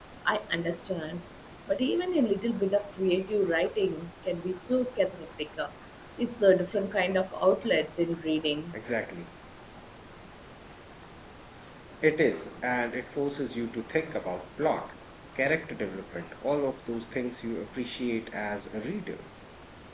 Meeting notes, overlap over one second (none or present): none